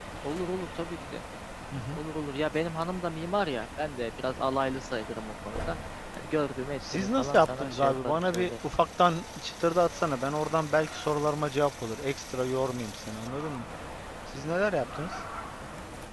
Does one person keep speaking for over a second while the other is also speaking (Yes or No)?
Yes